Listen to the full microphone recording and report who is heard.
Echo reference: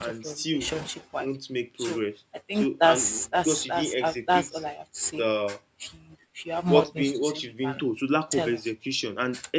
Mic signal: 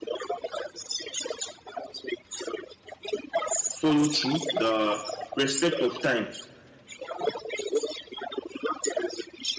both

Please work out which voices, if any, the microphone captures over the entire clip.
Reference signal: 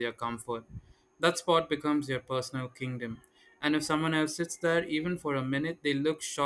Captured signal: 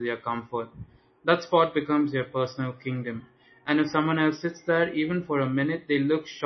echo only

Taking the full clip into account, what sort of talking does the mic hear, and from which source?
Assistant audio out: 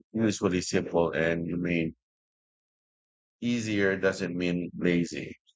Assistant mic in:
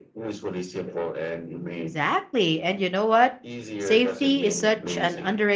both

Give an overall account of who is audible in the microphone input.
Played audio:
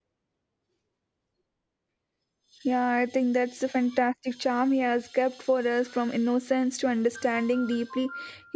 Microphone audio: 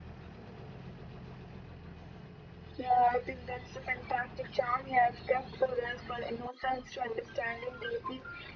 echo only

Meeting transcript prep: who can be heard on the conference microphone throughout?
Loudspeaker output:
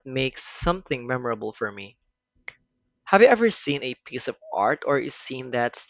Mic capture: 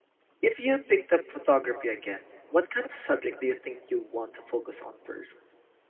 user only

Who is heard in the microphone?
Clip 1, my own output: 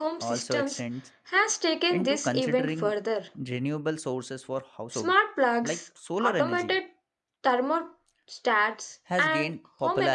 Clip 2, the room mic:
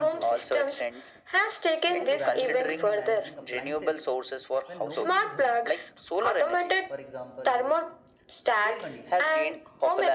both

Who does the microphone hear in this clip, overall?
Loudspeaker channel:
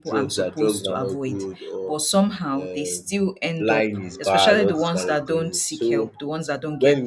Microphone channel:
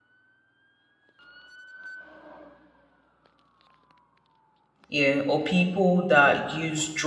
user only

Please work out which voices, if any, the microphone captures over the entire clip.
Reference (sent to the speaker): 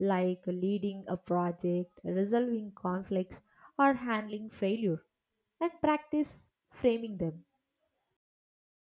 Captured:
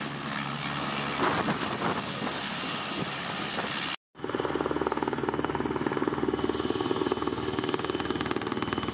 neither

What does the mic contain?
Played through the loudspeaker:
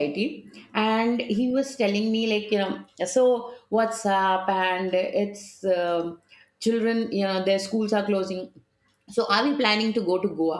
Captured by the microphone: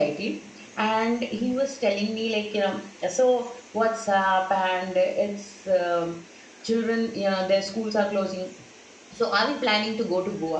echo only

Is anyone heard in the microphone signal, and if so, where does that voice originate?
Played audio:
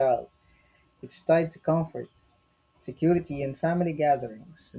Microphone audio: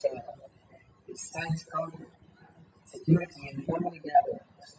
echo only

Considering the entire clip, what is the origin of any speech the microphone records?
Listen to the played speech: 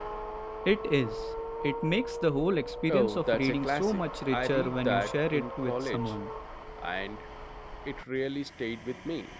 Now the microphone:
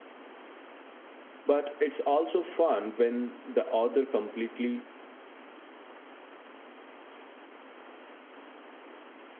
user only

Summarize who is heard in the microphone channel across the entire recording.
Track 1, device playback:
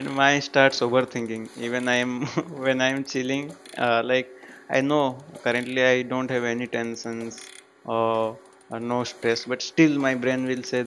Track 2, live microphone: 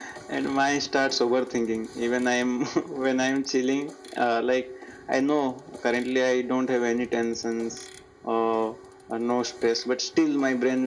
echo only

